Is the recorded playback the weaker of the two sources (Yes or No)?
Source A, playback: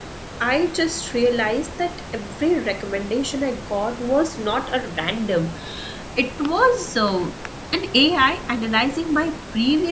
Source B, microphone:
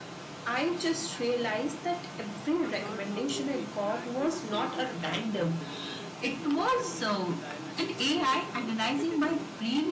No